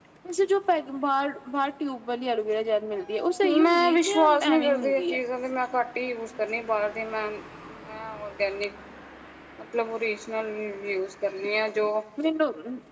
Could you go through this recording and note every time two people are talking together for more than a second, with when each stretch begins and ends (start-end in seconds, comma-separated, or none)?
3.6-5.2